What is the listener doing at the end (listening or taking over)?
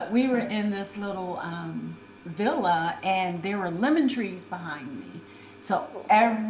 listening